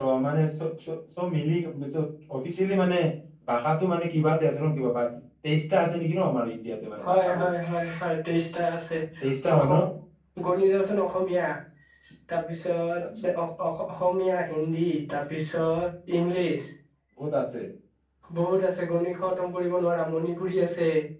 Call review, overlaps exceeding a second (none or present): none